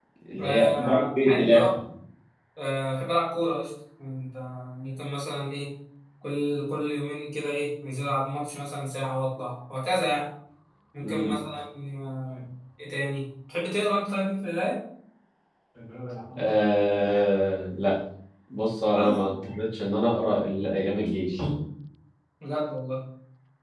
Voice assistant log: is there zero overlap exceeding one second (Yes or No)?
No